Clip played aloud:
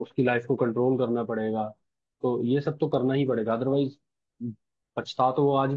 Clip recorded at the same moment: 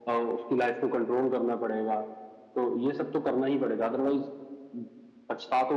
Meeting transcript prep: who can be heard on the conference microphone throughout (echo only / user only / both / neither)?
echo only